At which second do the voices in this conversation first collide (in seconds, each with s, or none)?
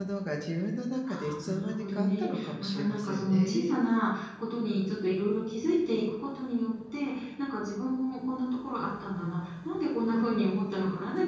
1.1 s